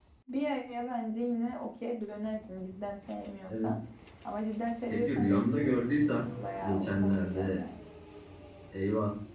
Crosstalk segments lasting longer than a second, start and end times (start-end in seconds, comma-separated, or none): 4.9-7.6